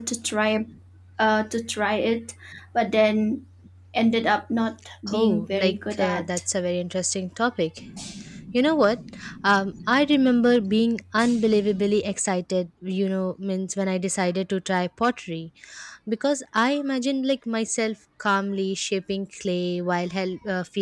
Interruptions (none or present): present